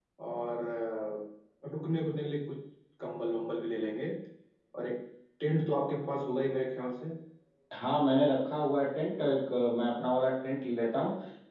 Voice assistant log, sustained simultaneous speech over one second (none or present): none